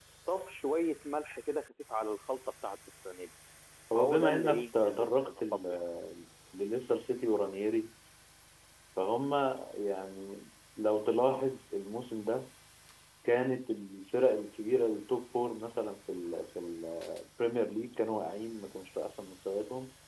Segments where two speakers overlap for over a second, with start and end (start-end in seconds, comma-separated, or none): 4.0-5.8